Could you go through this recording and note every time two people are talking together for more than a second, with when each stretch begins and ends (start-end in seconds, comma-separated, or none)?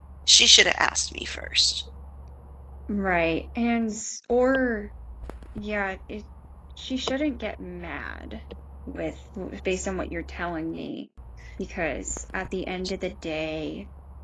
none